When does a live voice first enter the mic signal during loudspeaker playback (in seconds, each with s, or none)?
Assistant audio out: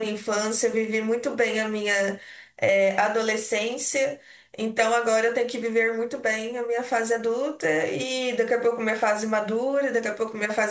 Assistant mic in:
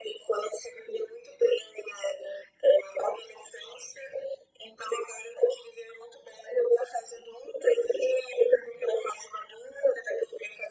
none